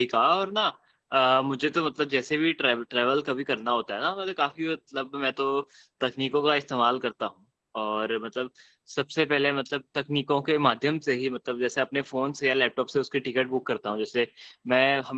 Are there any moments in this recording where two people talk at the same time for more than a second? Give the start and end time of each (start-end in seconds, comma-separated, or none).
none